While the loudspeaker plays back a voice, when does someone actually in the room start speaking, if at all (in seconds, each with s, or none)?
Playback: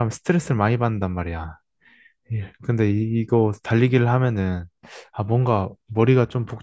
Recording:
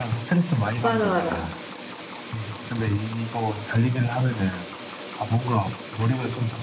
0.8 s